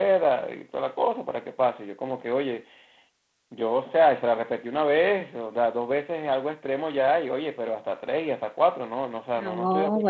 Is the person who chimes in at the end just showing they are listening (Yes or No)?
No